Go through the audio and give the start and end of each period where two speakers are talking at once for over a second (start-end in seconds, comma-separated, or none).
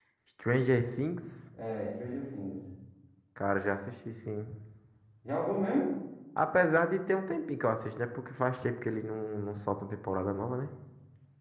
none